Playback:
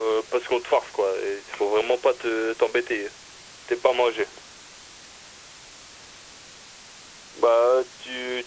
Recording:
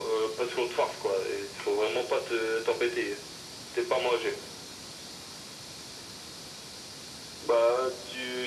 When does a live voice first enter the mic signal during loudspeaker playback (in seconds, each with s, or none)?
none